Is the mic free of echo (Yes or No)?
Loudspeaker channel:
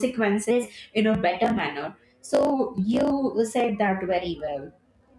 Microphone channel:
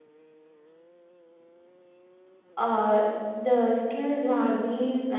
Yes